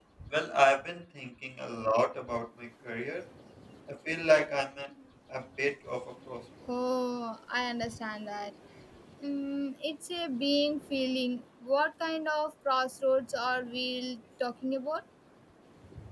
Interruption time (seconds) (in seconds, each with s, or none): none